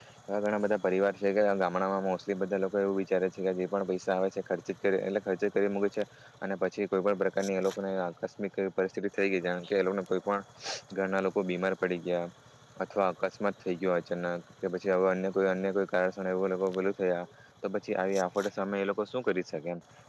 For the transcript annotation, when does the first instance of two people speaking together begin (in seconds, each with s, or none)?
none